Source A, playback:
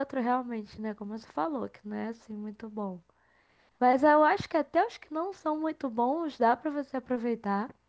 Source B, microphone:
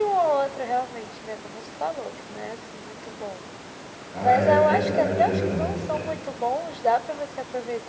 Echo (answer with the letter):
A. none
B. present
B